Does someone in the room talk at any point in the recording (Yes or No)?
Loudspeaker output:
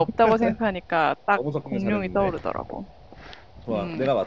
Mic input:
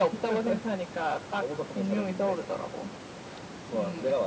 No